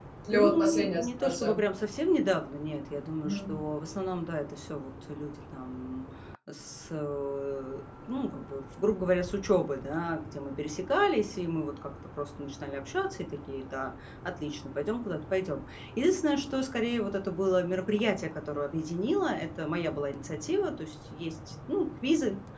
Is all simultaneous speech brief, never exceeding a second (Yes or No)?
No